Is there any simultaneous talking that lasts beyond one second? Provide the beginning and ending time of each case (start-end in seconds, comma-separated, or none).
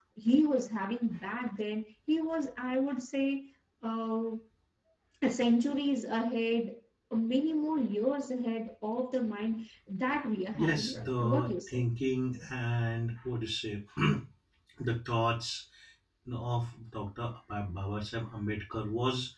10.5-11.8